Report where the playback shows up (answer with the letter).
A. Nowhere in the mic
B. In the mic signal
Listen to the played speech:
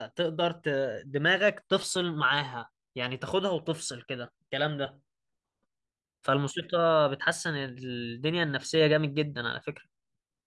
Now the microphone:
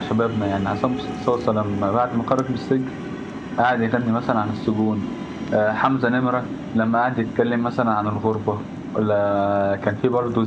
A